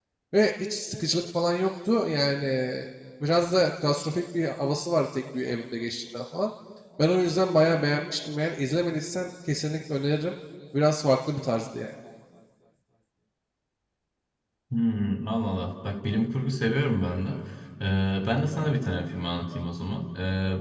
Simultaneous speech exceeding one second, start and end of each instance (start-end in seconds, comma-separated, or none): none